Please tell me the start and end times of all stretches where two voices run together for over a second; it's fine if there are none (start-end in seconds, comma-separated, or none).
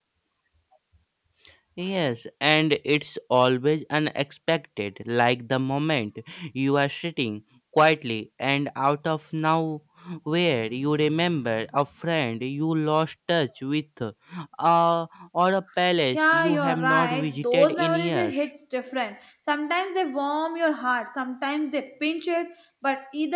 16.1-18.4